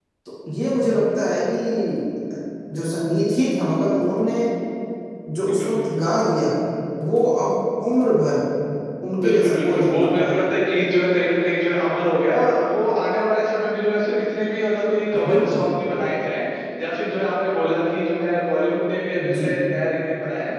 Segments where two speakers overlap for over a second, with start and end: 9.2-10.5

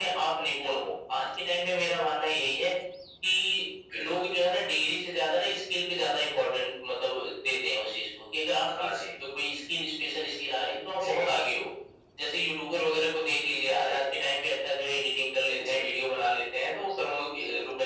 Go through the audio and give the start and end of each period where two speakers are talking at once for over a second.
none

